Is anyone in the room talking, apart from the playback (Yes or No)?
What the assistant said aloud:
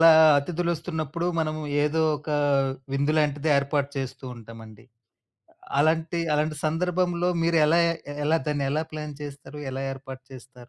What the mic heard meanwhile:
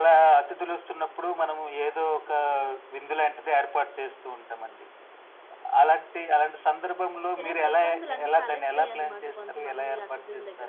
Yes